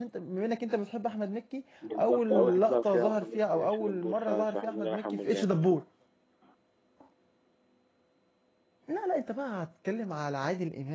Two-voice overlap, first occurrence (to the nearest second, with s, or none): 2 s